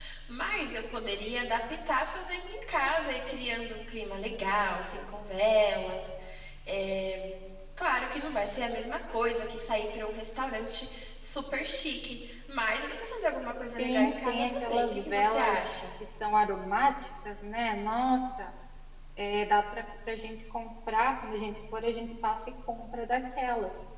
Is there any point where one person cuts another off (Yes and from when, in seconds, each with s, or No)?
Yes, from 13.8 s